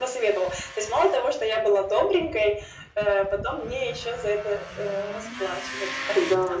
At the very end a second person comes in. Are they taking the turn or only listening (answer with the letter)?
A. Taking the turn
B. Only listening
A